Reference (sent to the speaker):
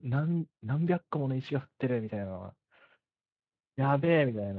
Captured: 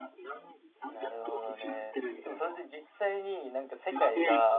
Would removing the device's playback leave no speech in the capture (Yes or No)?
No